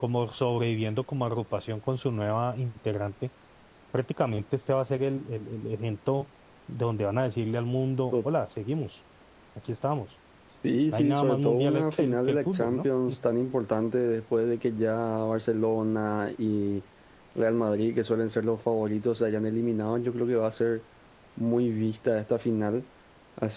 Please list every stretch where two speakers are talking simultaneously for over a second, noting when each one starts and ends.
10.9-12.8

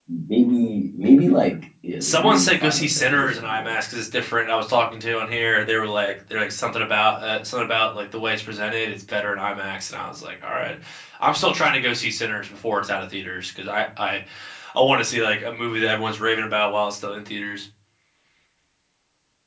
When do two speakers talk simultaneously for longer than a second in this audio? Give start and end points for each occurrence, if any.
2.0-3.7

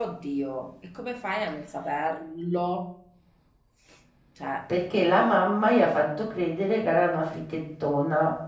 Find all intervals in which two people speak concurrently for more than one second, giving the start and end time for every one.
none

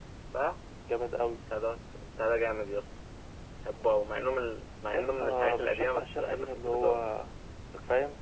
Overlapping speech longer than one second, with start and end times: 4.9-7.0

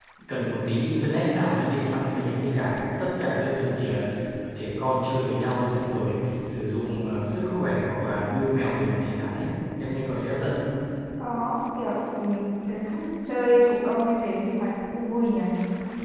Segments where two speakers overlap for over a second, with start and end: none

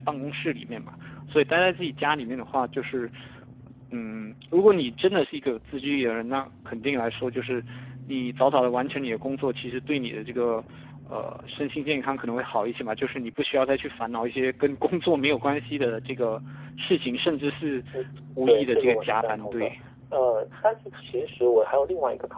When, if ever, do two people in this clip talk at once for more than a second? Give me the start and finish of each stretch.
18.5-19.7

